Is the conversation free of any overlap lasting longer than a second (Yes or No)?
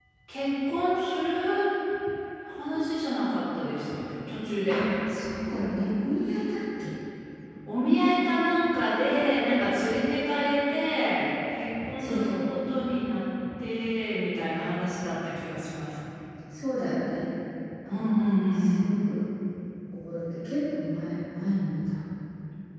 Yes